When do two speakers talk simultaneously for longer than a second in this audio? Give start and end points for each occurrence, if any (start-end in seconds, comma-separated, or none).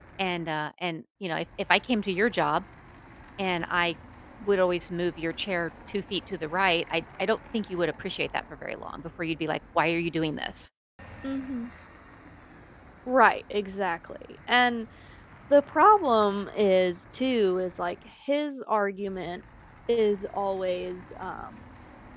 none